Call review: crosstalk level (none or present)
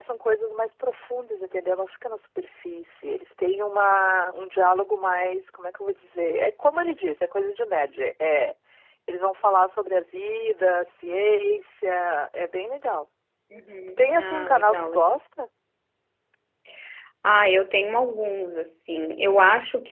present